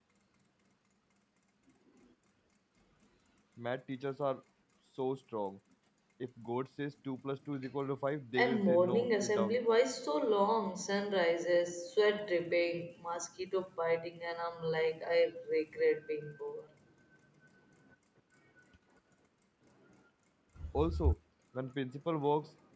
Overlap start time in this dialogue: 8 s

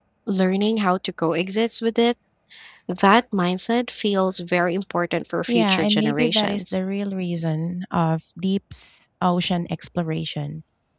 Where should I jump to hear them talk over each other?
5 s

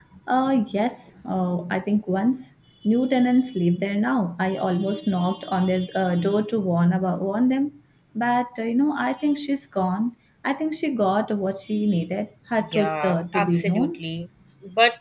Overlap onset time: 13 s

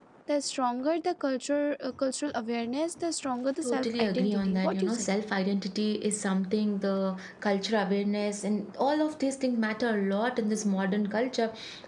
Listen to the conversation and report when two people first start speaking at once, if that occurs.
4 s

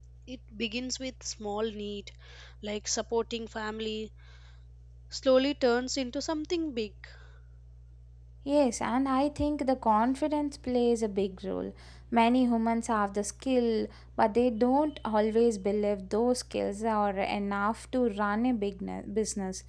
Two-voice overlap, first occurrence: none

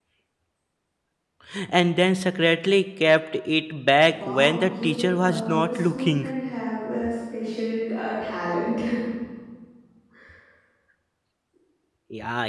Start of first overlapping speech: 4 s

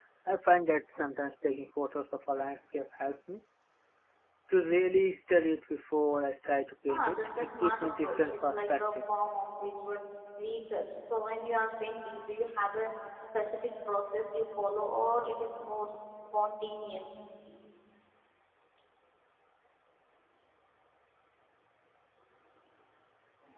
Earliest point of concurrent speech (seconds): 7 s

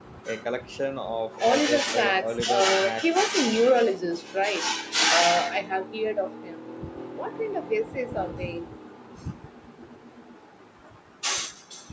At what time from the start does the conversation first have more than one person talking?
1 s

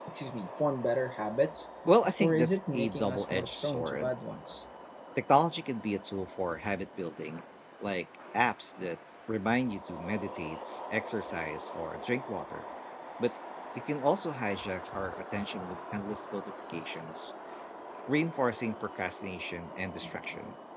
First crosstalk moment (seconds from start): 2 s

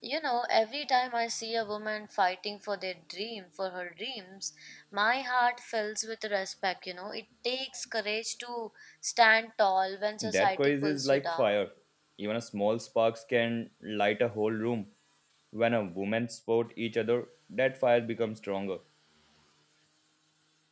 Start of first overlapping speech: 10 s

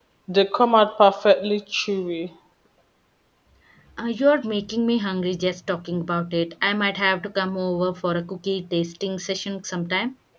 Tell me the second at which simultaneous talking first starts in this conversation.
none

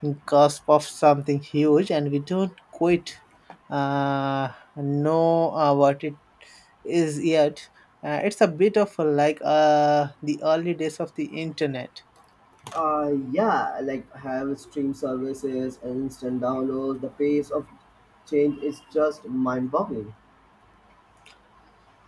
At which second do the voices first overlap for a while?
none

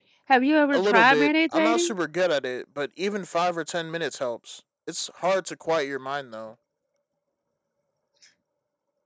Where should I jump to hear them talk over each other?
1 s

